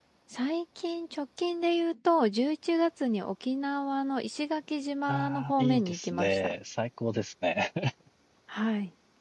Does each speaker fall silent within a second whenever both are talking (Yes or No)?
No